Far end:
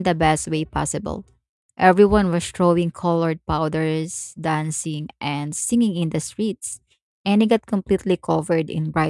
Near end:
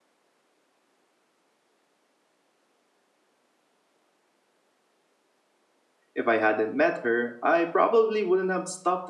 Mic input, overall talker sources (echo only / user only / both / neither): user only